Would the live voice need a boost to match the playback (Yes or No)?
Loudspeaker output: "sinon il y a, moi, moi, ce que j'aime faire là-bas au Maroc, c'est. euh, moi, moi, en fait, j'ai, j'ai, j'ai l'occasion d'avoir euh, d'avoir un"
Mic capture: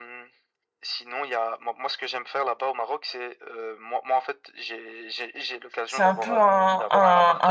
No